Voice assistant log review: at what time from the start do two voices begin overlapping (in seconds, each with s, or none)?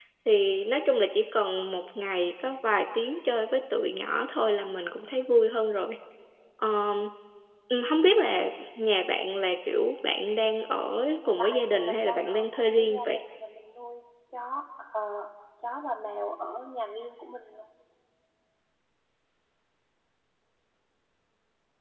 11.2 s